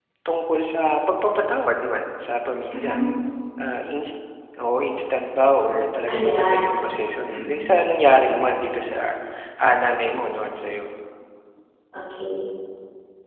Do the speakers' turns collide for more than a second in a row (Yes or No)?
No